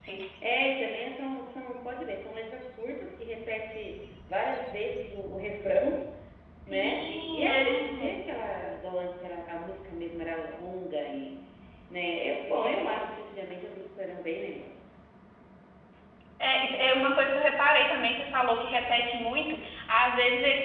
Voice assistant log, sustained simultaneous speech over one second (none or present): present